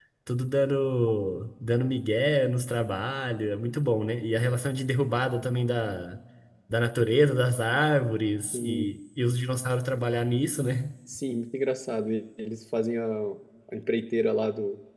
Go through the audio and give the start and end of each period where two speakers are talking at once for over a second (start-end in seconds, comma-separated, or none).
none